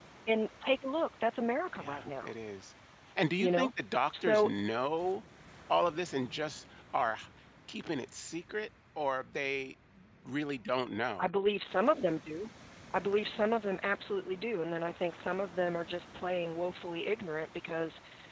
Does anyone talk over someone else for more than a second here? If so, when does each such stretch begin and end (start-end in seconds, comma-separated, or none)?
none